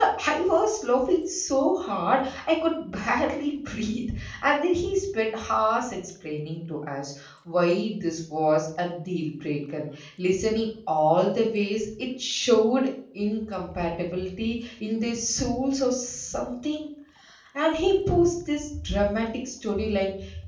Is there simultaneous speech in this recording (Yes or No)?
No